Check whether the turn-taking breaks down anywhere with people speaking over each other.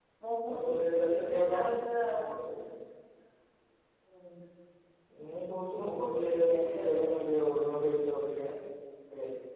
Yes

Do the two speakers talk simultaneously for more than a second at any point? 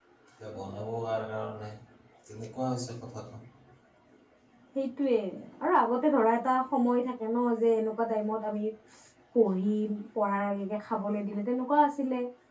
No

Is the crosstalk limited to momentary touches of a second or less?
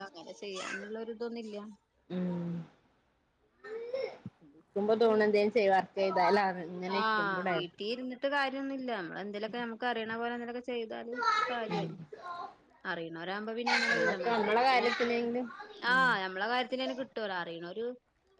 No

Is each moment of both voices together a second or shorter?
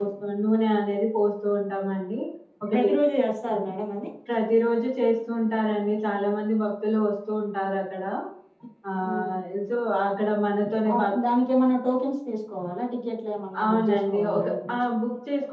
No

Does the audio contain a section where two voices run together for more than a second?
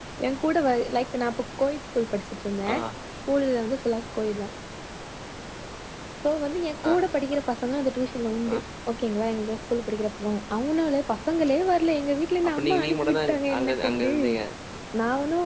Yes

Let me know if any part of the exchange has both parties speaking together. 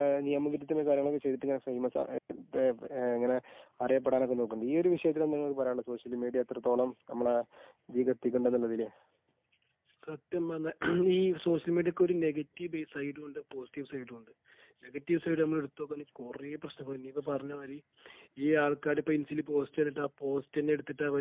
No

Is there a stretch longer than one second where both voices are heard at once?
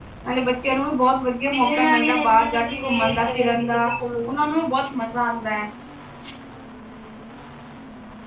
Yes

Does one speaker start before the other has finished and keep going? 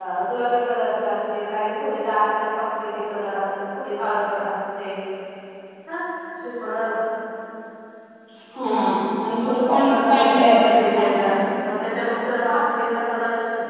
Yes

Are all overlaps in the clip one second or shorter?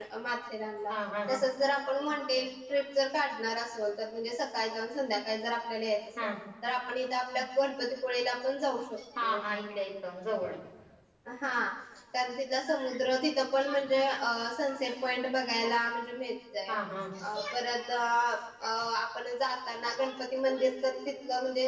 Yes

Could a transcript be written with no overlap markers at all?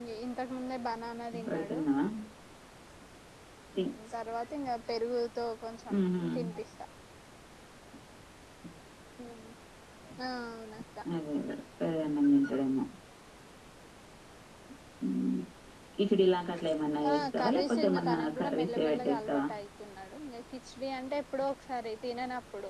No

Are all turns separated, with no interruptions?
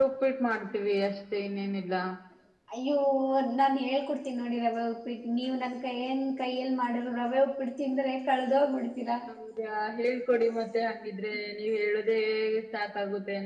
Yes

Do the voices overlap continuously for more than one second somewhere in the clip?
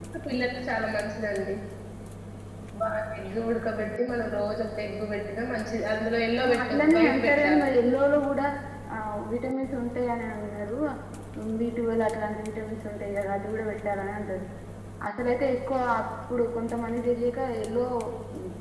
Yes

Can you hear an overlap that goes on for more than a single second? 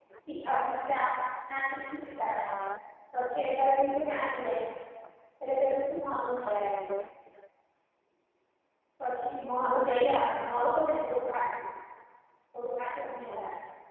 No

